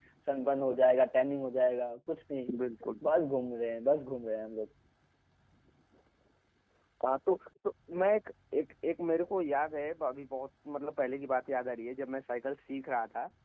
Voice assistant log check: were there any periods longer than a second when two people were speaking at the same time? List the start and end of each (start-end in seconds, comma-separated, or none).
none